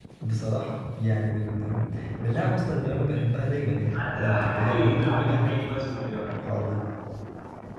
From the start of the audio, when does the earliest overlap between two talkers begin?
3.9 s

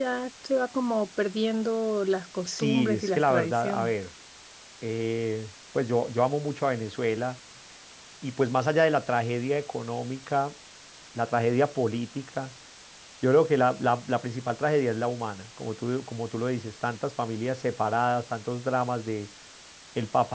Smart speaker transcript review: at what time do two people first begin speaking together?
2.5 s

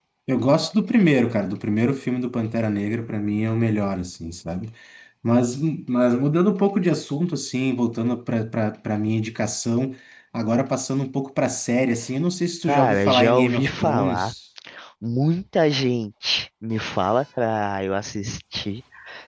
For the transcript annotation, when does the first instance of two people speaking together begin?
12.7 s

